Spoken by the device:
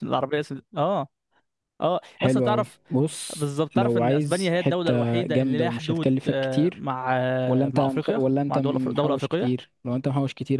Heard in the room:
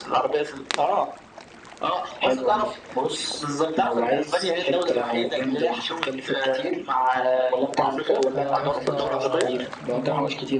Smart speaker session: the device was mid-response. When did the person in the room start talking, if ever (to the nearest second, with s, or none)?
8 s